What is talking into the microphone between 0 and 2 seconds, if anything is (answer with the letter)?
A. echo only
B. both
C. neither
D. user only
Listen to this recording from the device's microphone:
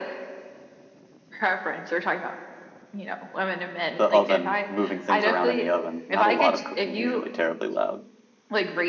A